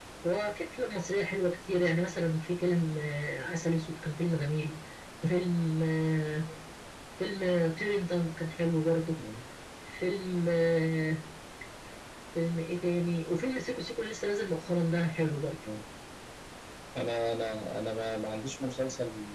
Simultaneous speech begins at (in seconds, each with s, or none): none